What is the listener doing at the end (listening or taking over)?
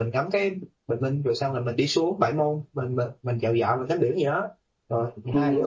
taking over